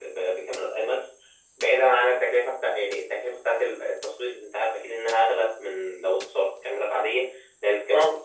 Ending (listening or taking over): listening